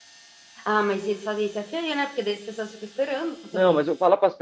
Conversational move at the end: taking over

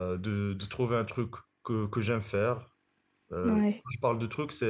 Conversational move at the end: listening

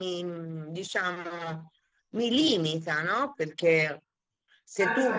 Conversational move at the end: listening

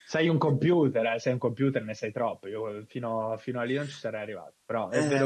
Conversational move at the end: taking over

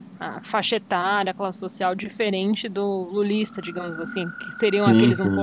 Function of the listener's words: listening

